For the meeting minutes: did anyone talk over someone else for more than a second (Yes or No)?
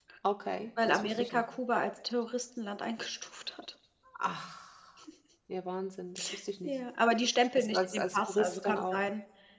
Yes